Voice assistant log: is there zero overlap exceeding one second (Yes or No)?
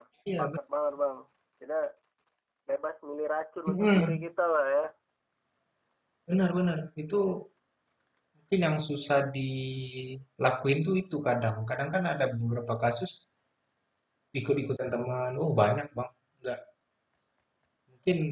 Yes